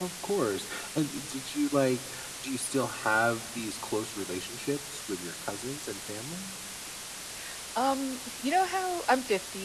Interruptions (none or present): none